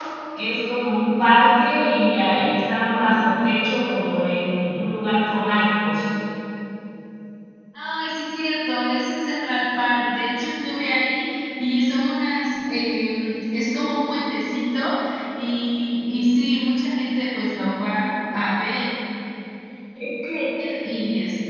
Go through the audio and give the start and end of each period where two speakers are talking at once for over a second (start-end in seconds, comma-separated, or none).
none